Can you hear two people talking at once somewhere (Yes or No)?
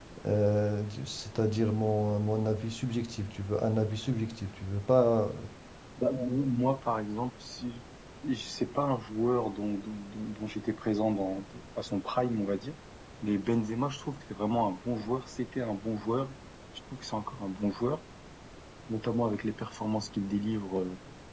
No